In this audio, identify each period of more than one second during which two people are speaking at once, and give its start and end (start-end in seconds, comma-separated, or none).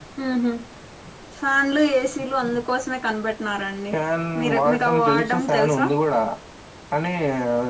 4.4-5.8